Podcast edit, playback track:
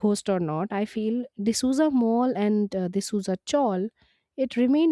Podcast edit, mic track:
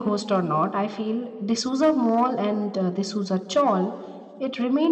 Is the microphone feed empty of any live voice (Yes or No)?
Yes